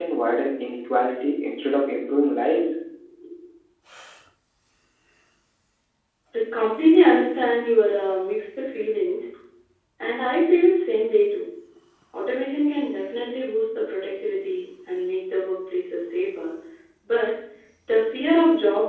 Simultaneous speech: No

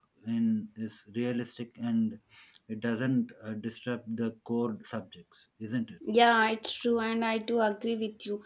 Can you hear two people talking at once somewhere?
No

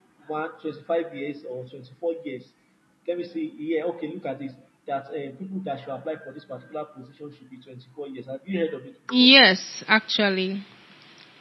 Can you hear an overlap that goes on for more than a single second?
No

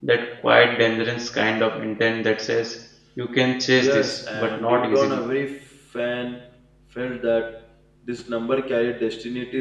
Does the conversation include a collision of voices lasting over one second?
Yes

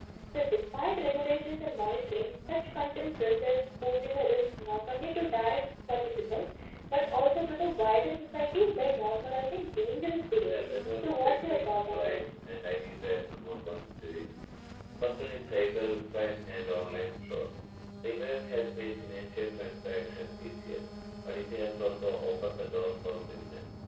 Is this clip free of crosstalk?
No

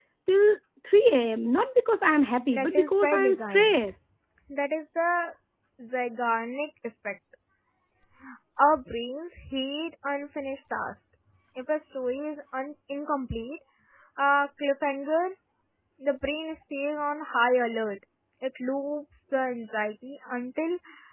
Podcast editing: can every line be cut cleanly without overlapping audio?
No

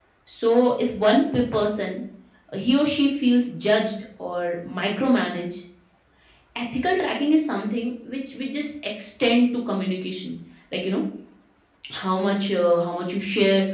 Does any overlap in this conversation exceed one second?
No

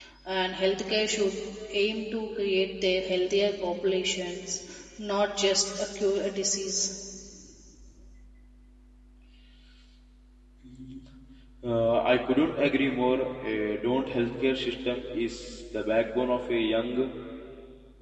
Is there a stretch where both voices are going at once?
No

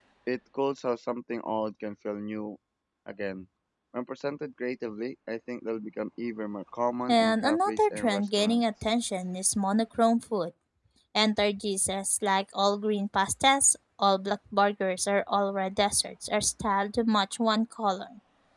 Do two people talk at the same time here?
Yes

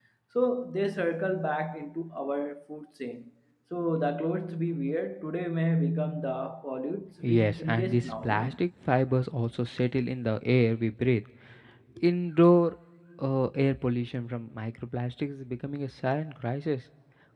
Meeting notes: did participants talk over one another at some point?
Yes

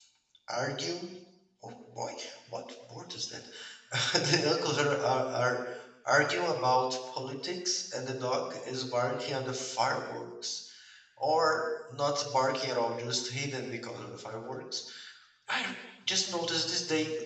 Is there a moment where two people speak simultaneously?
No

